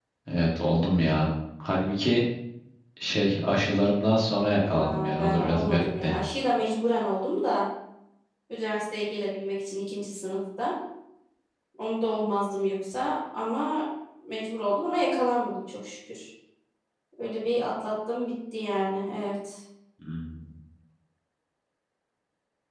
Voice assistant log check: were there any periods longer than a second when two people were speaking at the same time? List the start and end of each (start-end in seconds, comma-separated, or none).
4.6-6.2